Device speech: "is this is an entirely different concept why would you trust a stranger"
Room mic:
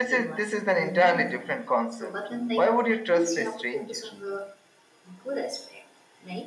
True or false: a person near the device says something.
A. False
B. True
B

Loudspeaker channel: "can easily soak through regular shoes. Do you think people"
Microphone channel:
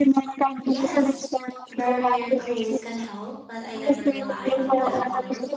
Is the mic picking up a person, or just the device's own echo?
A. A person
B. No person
A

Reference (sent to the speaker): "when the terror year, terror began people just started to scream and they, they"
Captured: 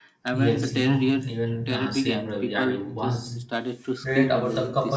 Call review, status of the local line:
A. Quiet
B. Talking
B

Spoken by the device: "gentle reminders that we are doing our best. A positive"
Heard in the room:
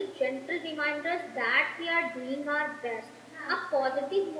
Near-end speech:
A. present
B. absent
A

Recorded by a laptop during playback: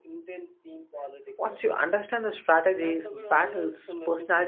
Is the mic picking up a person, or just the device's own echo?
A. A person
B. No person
A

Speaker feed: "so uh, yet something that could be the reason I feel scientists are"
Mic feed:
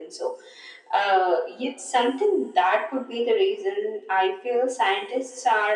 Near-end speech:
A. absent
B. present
A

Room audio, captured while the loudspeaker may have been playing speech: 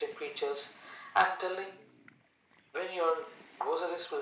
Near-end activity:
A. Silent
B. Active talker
A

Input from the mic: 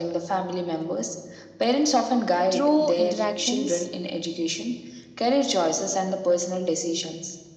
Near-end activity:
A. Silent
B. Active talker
B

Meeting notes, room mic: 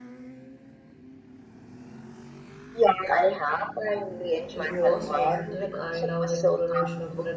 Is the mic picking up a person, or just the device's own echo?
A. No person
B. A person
B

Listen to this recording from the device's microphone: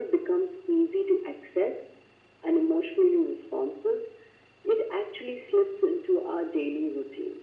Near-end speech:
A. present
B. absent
B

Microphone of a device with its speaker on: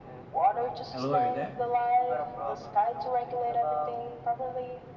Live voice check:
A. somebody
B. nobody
A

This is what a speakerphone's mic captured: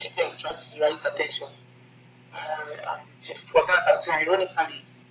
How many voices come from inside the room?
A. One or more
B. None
B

